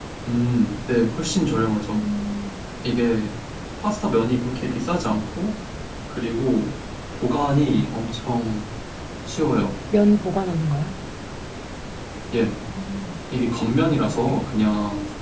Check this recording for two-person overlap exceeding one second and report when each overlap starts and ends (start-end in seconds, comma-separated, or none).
none